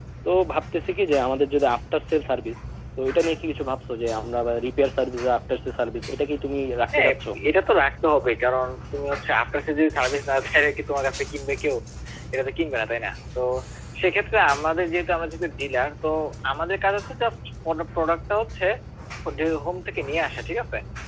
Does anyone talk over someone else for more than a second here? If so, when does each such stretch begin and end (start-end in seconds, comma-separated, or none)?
none